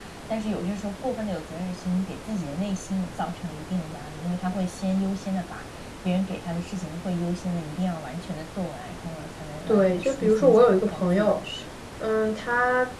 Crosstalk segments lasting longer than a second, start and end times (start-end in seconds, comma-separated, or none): 9.7-11.4